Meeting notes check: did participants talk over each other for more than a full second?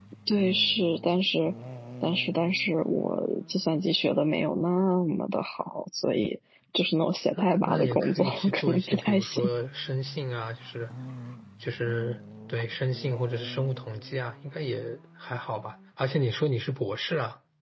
Yes, from 7.3 s

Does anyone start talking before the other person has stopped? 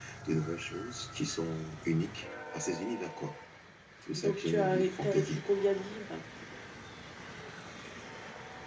Yes, from 4.2 s

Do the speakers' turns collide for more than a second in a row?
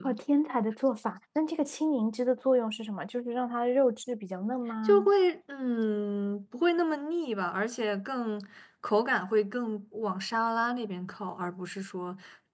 No

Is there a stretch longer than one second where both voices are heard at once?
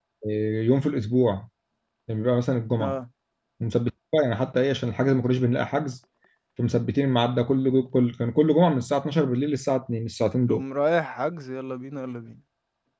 No

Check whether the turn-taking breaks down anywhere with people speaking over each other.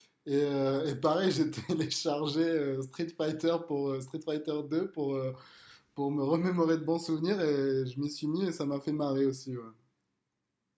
No

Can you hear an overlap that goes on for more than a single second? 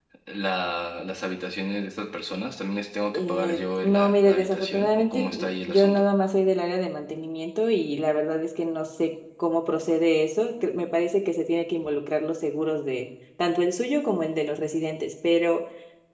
Yes, from 3.1 s

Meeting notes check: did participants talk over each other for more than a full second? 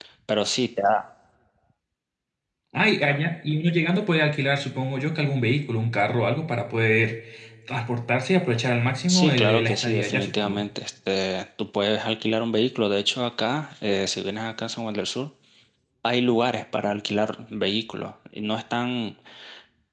Yes, from 9.1 s

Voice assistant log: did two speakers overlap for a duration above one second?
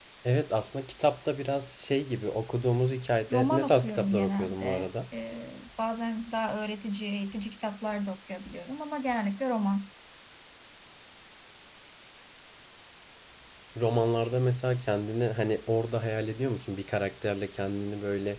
Yes, from 3.3 s

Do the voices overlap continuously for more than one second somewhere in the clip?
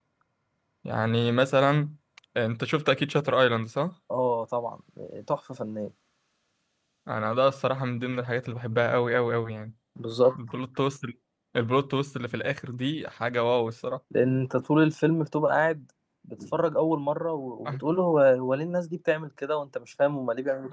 No

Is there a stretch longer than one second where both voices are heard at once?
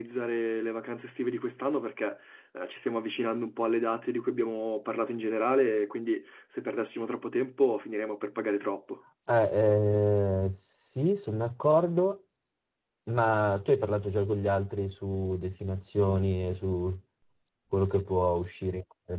No

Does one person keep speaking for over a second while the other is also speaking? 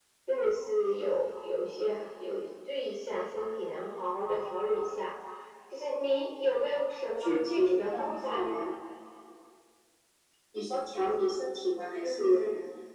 Yes, from 7.2 s

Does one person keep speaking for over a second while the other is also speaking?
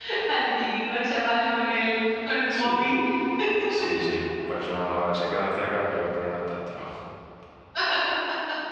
No

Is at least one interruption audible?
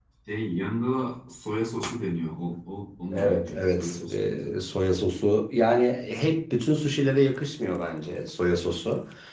Yes, from 3.1 s

